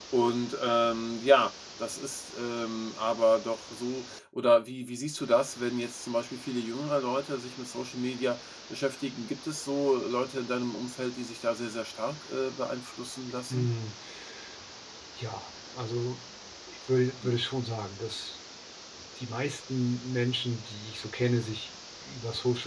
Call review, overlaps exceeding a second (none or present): none